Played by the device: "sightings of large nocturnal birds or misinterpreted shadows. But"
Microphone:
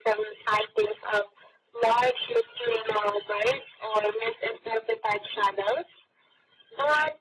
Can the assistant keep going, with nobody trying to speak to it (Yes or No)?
Yes